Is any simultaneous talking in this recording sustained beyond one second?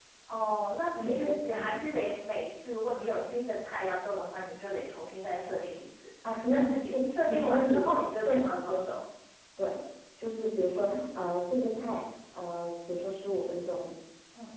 Yes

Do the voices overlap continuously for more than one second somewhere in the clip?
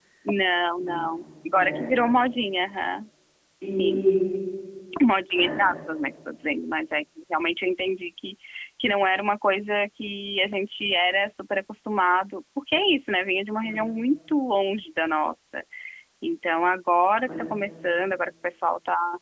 No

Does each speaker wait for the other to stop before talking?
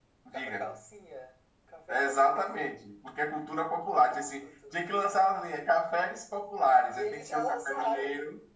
No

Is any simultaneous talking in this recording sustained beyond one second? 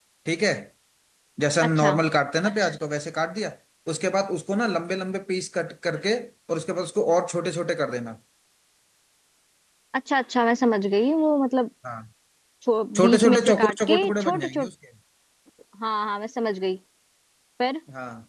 Yes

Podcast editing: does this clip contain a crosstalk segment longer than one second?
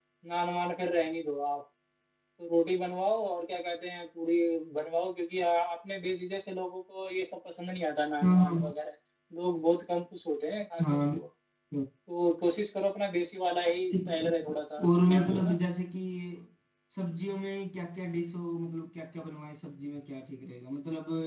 Yes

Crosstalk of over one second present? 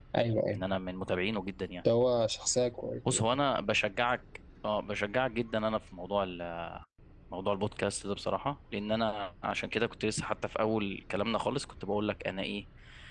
No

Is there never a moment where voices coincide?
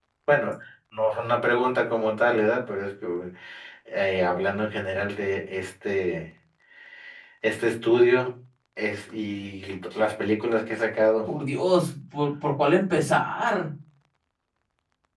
Yes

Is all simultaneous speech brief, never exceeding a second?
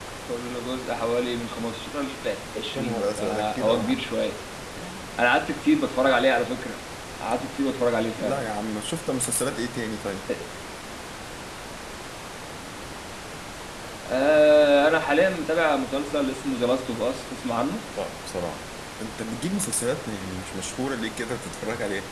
No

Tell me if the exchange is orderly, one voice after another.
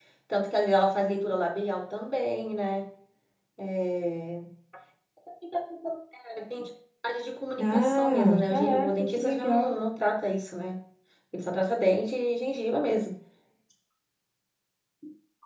No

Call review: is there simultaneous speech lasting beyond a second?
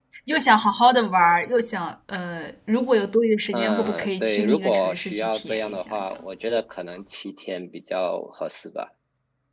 Yes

